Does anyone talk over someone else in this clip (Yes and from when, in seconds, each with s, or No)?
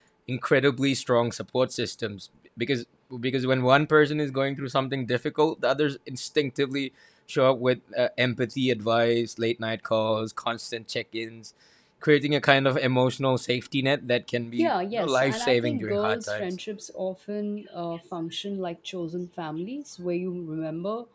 Yes, from 14.6 s